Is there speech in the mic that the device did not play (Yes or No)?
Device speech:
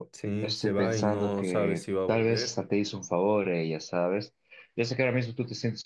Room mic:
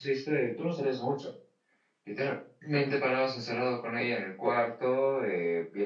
Yes